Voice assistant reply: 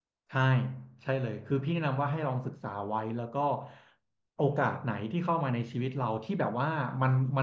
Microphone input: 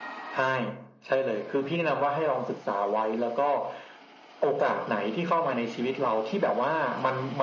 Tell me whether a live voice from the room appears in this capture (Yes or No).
No